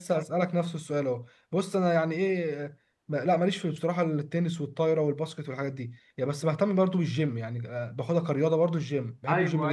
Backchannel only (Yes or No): No